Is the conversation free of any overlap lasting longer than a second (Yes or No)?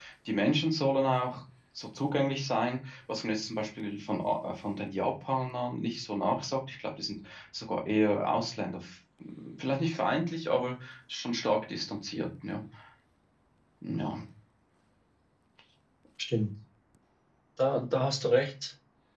Yes